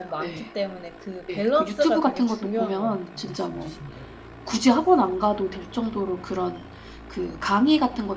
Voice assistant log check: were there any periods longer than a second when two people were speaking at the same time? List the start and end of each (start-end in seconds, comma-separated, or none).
1.4-3.8